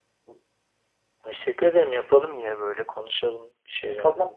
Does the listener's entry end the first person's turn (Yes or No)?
Yes